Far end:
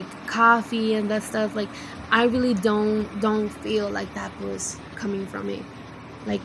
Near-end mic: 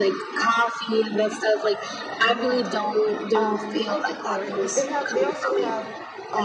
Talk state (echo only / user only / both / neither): both